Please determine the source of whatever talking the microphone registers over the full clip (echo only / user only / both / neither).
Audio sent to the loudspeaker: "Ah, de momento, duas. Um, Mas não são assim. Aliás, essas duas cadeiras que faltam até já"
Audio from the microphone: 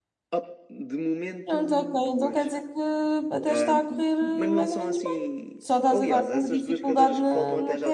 both